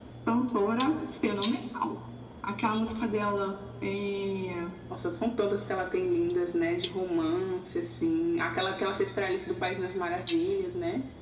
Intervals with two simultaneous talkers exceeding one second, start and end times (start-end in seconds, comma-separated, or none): none